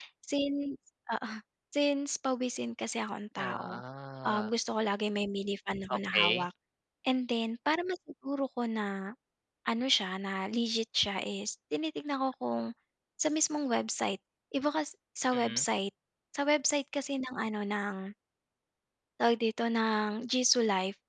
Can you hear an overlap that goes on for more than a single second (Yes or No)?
No